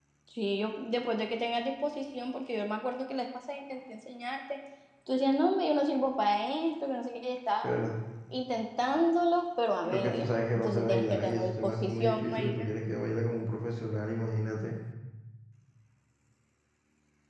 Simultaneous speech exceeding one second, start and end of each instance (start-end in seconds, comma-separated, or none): 9.8-12.7